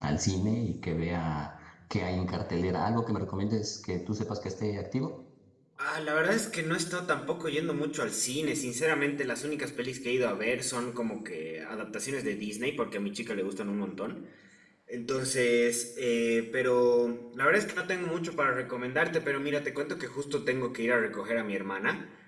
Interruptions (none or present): none